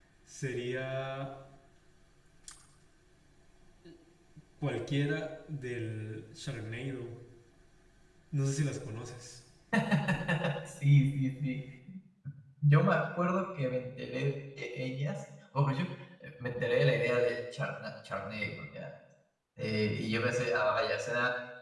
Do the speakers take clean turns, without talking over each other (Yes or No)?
Yes